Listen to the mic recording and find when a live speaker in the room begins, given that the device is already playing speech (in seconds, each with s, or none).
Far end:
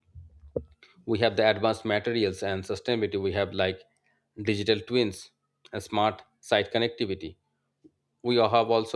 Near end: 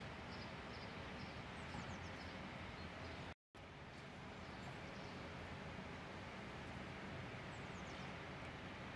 none